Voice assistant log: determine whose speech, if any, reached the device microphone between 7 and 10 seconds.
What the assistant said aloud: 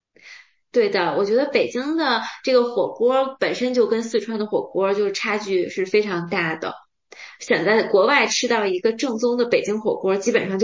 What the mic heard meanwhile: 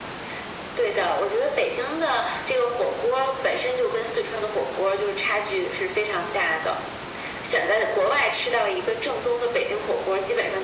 echo only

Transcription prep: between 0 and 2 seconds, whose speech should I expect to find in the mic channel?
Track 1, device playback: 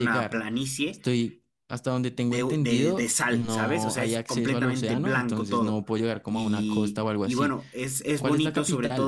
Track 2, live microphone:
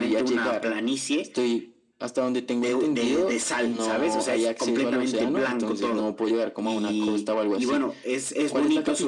echo only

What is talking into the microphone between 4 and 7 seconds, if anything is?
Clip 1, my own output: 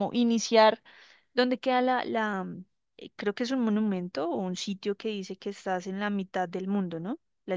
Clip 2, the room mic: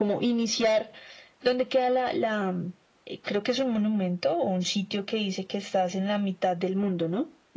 echo only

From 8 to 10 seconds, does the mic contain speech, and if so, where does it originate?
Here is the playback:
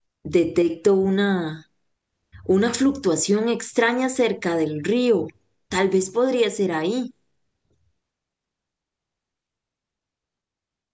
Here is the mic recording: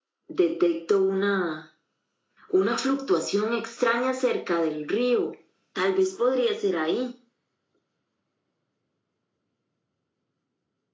neither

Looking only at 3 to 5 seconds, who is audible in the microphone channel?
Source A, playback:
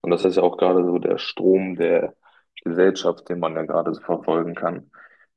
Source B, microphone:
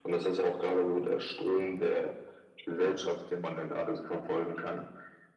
echo only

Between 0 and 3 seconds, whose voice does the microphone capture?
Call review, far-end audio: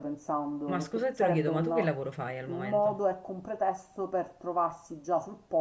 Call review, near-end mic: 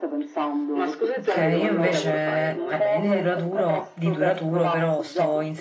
both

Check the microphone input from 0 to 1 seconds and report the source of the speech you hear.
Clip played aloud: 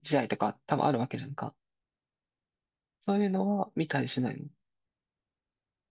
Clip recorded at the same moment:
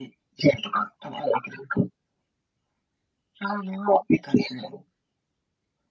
echo only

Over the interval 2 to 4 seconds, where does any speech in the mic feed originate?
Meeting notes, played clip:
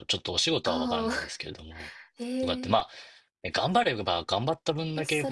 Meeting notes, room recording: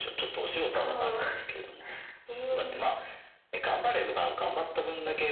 echo only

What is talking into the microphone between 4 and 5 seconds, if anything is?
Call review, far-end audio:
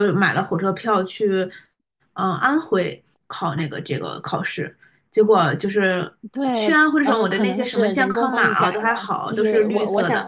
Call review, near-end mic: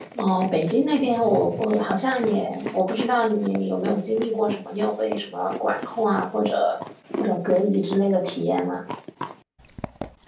user only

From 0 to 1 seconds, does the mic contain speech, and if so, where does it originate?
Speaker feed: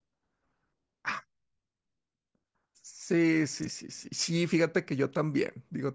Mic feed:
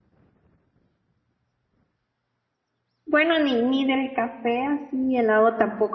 neither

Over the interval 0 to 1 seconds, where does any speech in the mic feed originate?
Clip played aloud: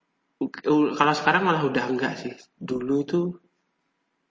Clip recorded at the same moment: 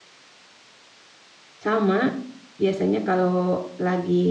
neither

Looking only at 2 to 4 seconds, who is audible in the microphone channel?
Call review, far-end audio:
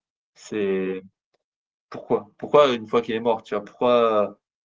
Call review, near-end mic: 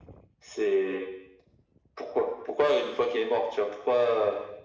echo only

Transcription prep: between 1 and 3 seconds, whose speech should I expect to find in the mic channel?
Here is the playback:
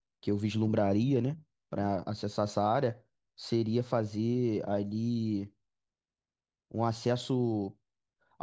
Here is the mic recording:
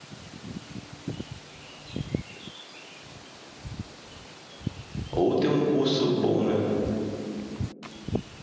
neither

